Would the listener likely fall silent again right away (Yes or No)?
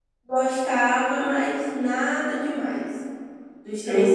Yes